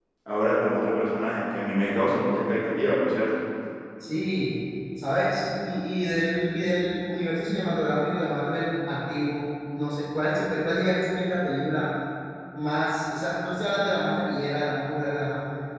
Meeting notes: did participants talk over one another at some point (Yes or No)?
No